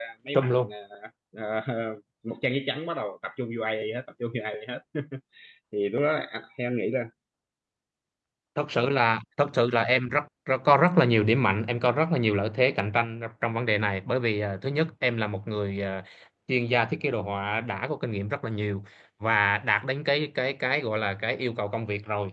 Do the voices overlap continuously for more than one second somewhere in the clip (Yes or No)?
No